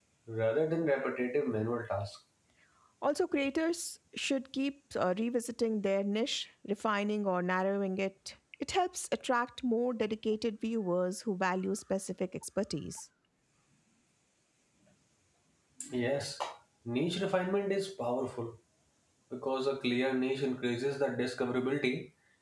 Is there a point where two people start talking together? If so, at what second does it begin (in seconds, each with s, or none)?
none